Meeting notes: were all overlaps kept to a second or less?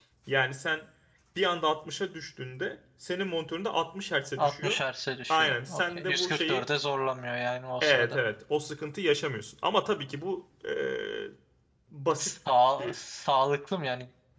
No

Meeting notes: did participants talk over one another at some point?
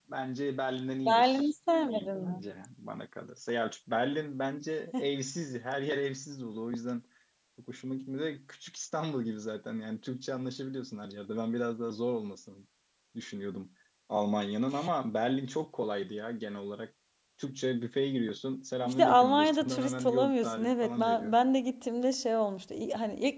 Yes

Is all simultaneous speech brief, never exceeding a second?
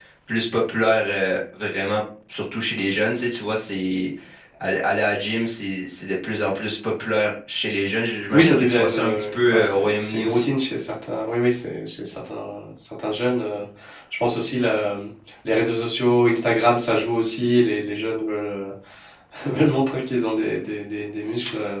No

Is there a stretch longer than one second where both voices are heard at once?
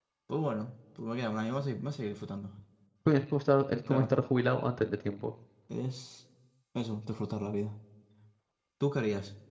No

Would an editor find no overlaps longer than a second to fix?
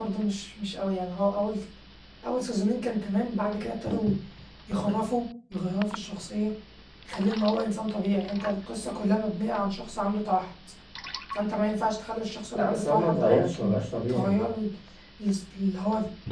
No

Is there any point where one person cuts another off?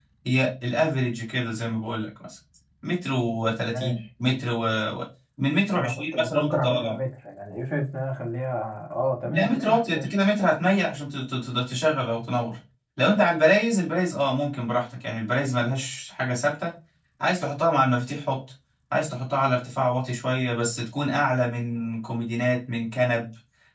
Yes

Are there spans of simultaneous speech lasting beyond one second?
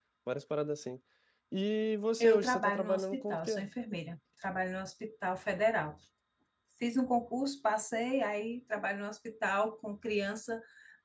Yes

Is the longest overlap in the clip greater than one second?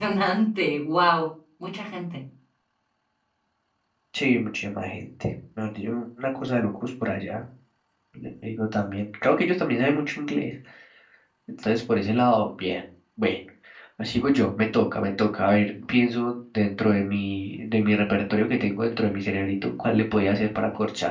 No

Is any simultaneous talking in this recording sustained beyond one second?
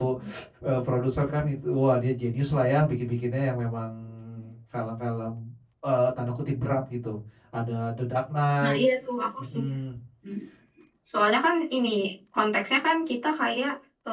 No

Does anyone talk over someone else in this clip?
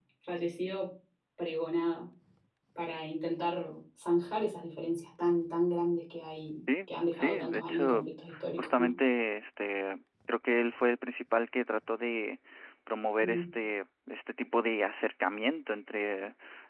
Yes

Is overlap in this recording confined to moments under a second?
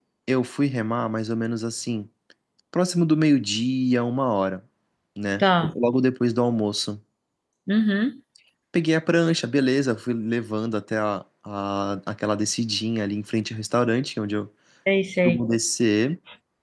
Yes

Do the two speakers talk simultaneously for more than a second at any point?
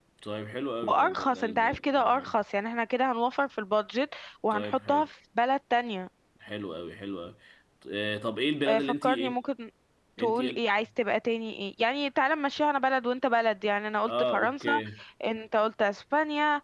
Yes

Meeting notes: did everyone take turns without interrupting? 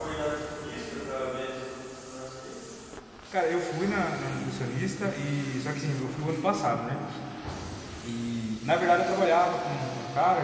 Yes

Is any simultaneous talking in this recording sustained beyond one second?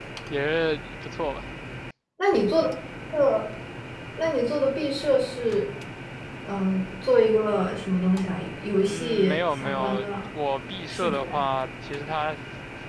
Yes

